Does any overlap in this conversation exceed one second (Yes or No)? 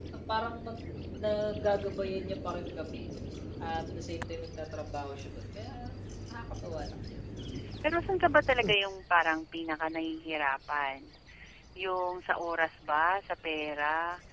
No